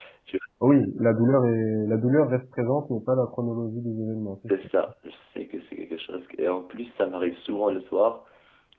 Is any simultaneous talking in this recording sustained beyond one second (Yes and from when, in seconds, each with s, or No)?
No